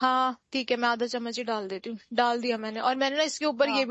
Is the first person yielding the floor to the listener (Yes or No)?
No